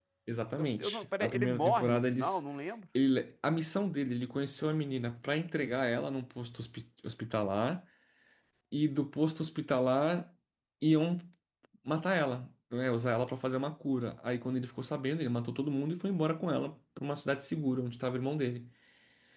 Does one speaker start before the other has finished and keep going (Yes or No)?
Yes